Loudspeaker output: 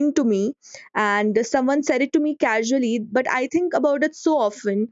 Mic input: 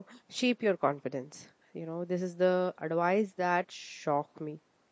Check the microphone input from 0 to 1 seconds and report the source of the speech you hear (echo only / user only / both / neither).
user only